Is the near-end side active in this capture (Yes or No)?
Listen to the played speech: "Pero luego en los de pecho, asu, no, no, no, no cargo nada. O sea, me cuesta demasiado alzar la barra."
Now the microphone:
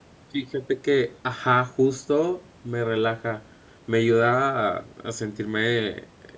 Yes